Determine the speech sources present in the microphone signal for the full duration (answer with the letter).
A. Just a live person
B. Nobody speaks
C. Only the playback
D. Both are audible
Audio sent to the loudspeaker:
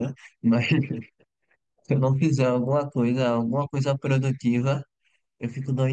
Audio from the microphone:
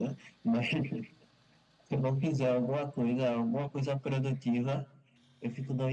C